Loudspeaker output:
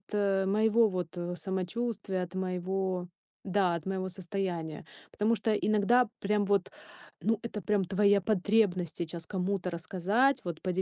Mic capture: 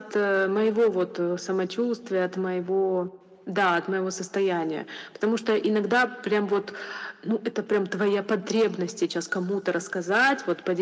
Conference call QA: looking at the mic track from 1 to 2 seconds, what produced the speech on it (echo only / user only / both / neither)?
echo only